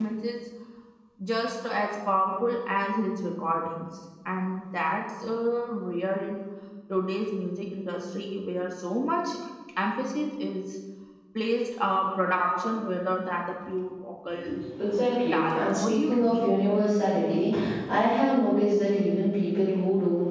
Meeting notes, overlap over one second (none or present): present